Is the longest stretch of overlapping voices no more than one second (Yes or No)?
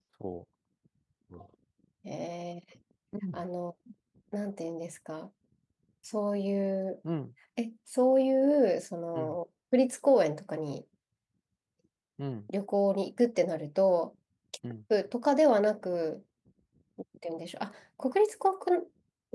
Yes